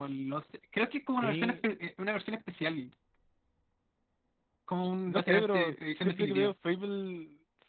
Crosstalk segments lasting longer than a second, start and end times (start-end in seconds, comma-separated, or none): 5.1-6.5